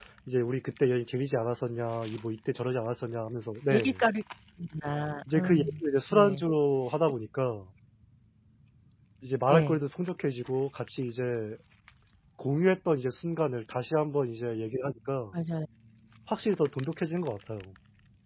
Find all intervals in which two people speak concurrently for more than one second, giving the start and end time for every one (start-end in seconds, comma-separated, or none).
none